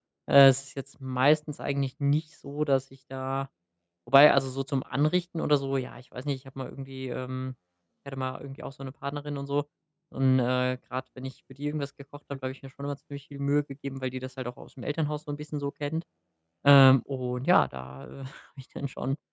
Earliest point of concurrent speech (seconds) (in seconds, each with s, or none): none